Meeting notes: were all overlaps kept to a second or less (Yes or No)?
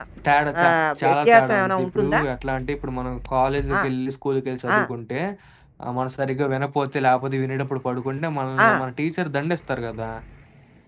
No